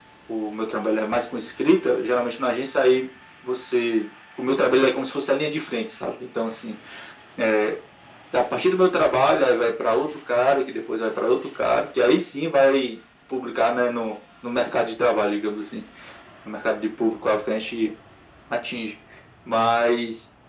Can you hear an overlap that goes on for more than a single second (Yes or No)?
No